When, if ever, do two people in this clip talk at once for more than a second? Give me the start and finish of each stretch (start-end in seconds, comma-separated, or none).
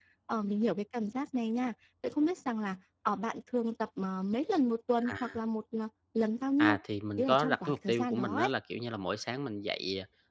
7.2-8.5